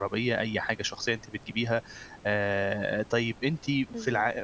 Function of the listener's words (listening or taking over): listening